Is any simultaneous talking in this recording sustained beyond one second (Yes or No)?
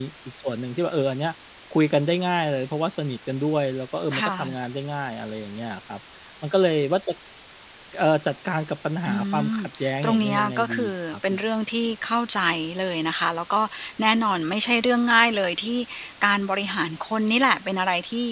Yes